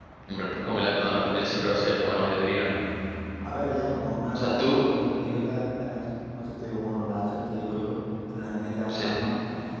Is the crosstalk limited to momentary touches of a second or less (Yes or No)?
Yes